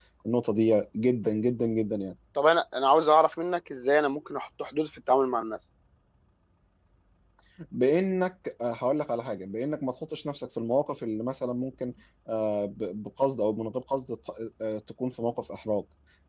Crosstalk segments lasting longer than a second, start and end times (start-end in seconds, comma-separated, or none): none